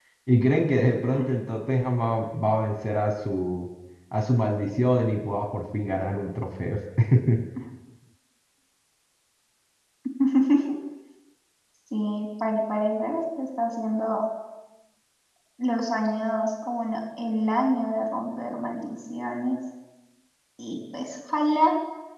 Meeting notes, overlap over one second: none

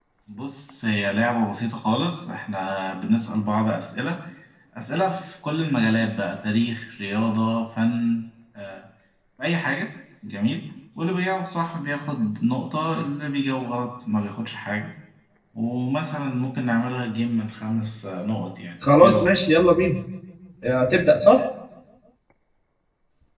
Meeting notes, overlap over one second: none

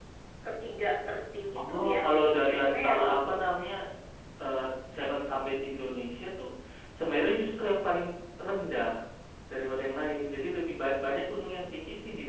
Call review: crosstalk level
present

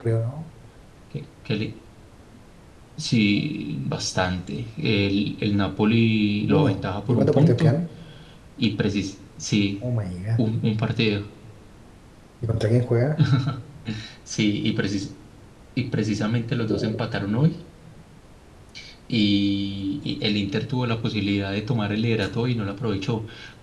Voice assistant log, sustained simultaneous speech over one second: present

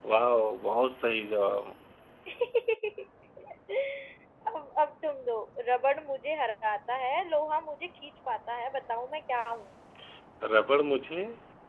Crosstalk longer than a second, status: none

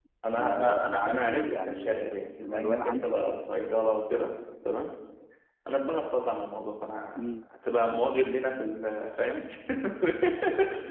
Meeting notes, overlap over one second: present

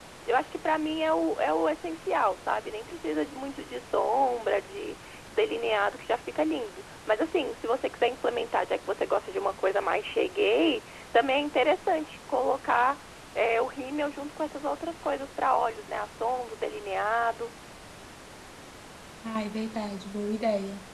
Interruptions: none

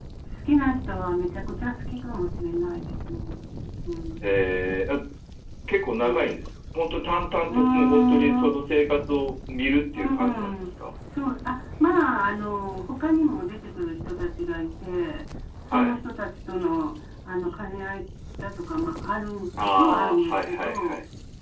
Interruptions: present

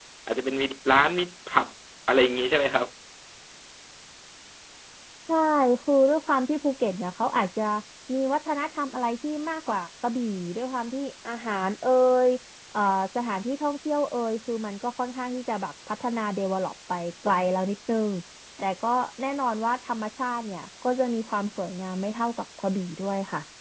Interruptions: none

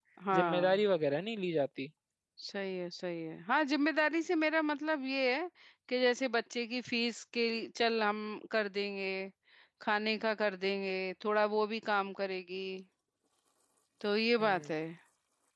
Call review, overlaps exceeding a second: none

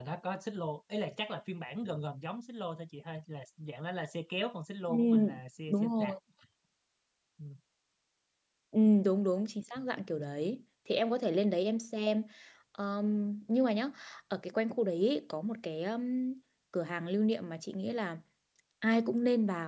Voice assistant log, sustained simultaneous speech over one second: none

